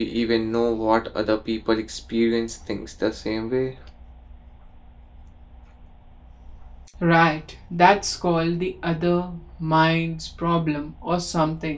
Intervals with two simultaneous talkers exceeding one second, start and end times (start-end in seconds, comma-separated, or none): none